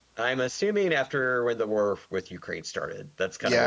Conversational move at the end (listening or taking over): taking over